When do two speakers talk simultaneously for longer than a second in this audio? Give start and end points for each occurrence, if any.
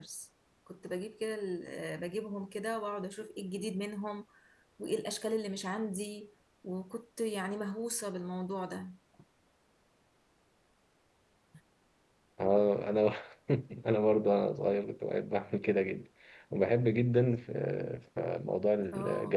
none

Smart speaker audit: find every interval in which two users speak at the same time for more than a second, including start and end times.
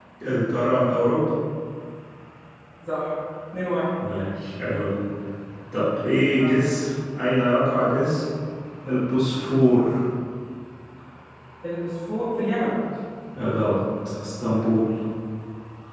none

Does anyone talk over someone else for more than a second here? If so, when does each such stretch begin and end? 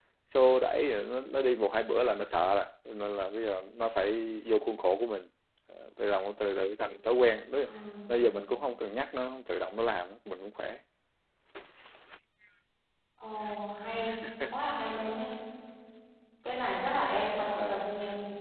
none

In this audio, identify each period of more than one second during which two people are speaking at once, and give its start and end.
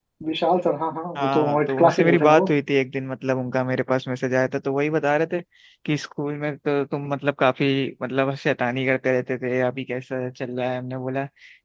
1.2-2.5

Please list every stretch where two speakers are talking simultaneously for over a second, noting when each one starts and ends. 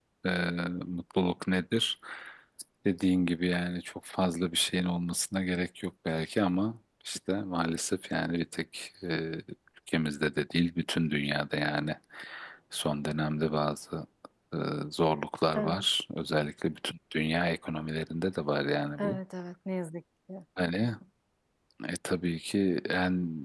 none

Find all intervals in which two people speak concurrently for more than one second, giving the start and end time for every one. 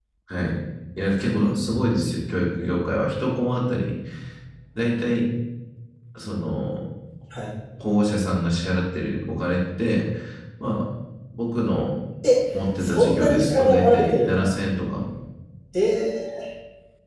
12.8-14.5

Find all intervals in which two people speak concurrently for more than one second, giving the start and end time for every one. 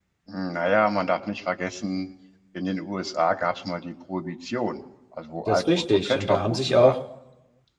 5.5-6.9

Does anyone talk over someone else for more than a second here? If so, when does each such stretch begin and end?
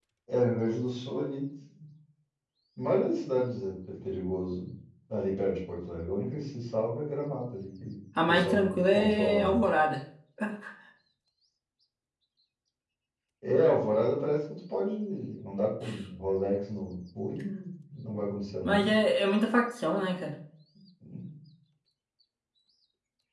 8.3-9.6

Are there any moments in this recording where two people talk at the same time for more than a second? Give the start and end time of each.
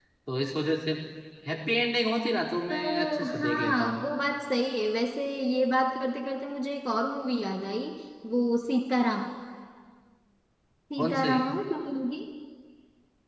2.7-4.1

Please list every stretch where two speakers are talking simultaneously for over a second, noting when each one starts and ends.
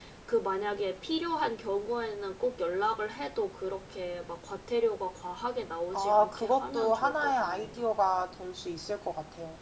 5.9-7.8

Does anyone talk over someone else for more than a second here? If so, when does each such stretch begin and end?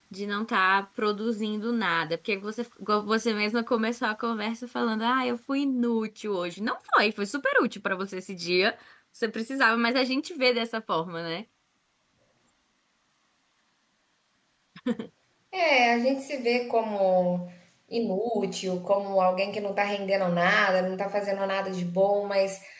none

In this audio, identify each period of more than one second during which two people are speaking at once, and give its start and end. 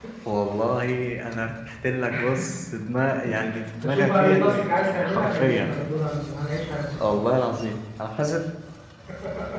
3.8-5.7

